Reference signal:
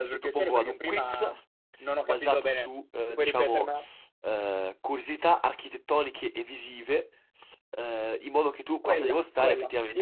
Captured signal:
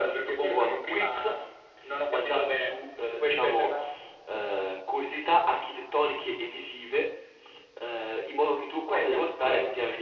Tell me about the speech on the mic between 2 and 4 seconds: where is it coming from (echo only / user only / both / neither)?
echo only